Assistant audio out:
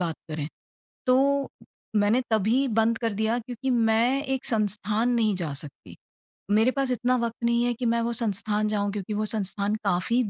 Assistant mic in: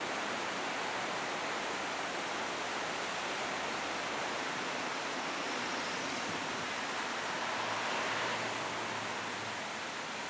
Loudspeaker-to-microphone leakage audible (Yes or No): No